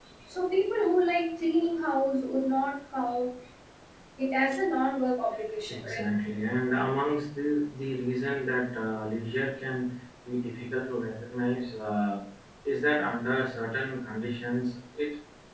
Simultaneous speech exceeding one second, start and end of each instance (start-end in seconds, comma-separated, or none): none